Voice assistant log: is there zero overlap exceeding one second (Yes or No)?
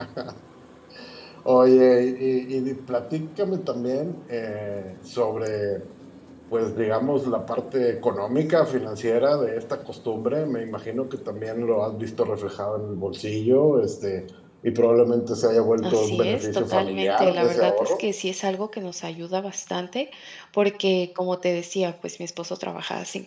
No